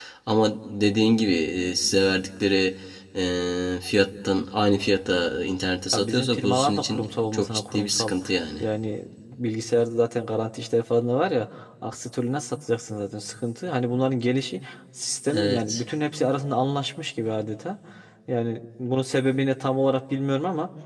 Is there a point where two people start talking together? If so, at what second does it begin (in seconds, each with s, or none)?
5.9 s